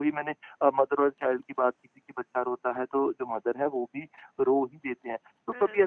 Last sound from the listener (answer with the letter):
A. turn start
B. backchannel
B